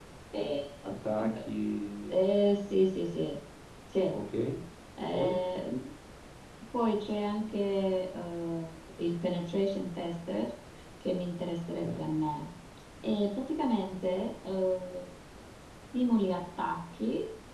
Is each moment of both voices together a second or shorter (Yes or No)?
Yes